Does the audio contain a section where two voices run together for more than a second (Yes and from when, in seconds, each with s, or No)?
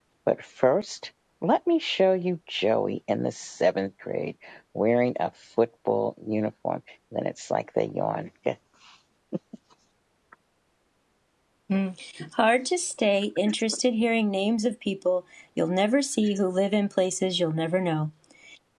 No